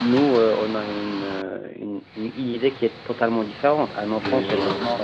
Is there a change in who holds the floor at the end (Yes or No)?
No